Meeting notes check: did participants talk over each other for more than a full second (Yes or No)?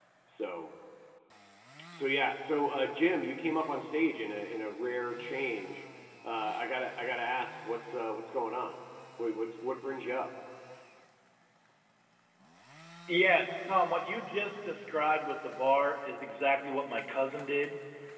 No